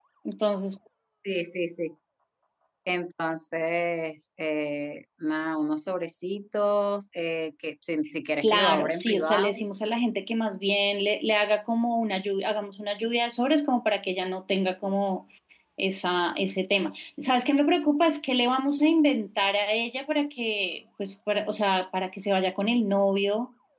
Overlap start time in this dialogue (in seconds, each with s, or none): 8.4 s